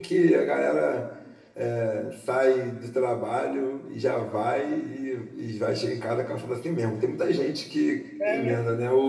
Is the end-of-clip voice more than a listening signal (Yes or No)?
No